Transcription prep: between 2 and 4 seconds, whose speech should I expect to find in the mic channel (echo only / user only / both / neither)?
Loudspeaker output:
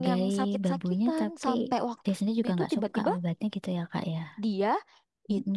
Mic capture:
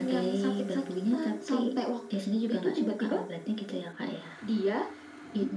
echo only